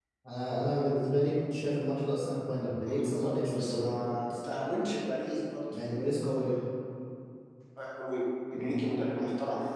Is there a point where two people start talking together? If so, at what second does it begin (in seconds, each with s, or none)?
2.9 s